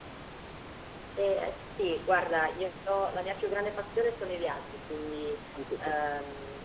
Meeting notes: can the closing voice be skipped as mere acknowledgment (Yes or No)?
Yes